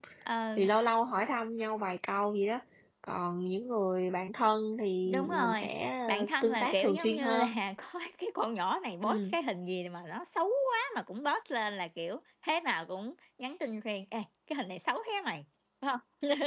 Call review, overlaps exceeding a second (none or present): present